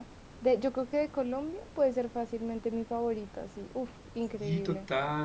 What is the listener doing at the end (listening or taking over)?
taking over